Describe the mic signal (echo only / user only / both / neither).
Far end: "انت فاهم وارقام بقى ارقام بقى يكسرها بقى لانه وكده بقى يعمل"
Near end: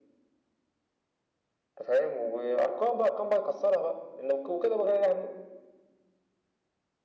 echo only